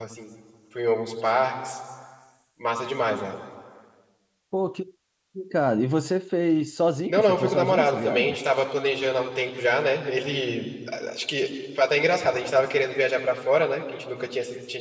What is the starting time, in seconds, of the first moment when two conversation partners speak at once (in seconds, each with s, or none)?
7.1 s